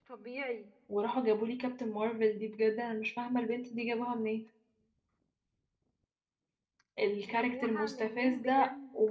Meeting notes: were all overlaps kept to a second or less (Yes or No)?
No